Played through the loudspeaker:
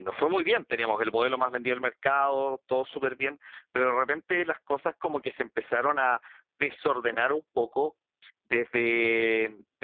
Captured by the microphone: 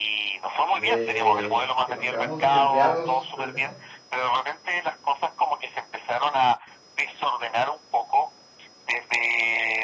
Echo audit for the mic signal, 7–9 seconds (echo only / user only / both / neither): echo only